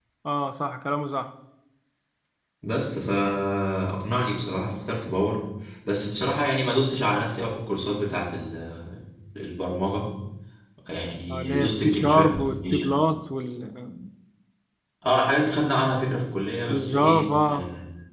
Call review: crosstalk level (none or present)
present